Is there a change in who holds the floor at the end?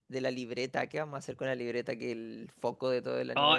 Yes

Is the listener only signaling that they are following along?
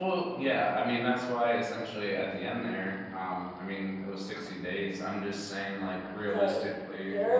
No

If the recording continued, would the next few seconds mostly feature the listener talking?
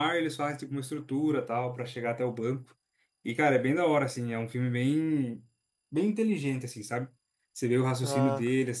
No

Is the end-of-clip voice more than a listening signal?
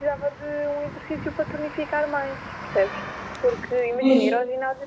No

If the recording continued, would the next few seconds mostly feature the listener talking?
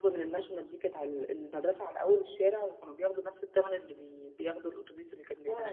Yes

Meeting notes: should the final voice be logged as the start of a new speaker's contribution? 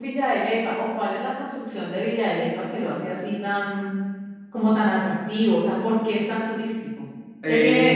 Yes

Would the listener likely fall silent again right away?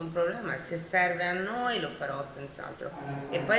Yes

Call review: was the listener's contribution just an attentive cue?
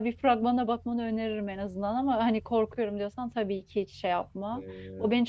Yes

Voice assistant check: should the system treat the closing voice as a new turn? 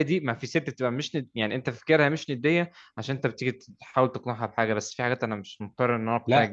Yes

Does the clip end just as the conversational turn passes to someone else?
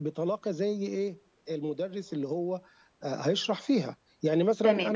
Yes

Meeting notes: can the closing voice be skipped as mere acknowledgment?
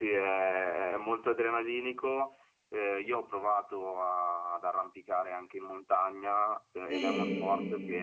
Yes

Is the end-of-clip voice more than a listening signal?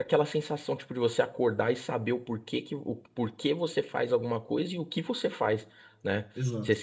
No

